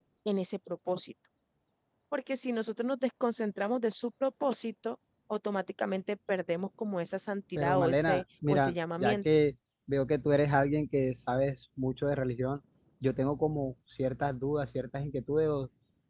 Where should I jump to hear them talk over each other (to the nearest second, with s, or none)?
8 s